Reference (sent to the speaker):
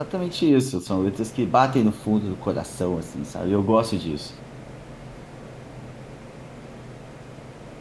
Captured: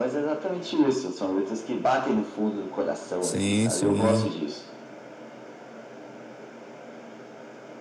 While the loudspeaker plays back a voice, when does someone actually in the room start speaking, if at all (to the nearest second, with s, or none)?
3 s